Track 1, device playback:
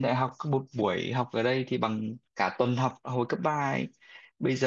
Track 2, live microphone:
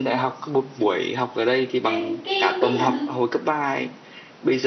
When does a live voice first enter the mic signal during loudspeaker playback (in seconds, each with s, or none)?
1.8 s